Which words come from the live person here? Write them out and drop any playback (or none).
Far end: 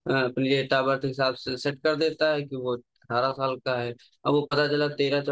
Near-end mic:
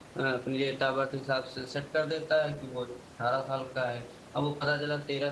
none